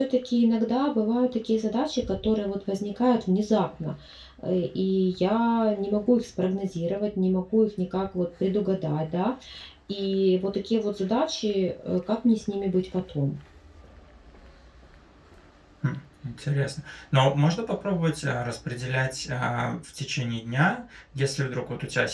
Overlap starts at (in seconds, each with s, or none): none